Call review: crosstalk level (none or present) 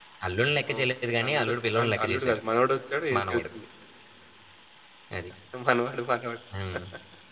present